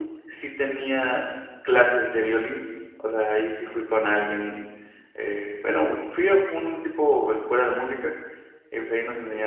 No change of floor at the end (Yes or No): Yes